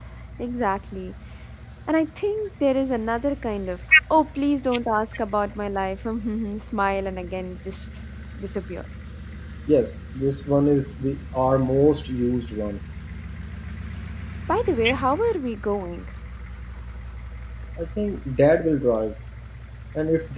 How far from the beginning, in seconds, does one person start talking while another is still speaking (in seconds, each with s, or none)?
none